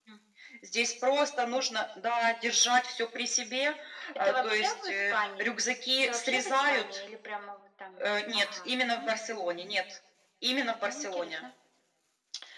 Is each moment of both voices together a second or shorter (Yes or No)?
No